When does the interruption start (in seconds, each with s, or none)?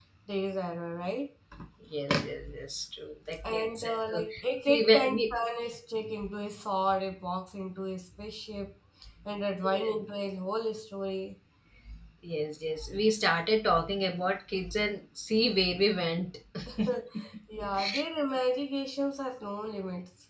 3.4 s